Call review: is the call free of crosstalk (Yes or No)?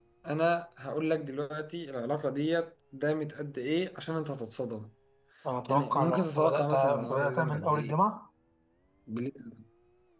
No